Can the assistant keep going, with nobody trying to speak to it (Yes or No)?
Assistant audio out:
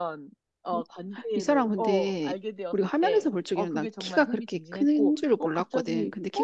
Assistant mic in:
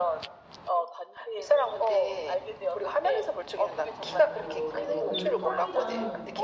No